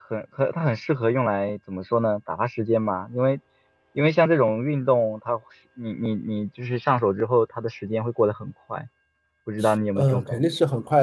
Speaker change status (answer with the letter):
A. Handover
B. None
A